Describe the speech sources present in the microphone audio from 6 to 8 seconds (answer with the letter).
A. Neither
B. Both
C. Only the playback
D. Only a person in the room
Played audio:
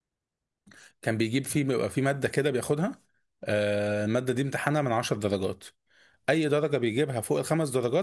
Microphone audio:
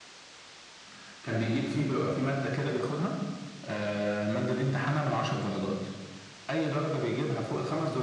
C